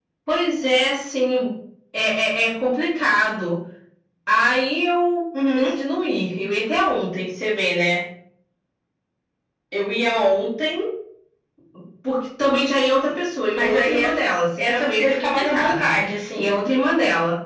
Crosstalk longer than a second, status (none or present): present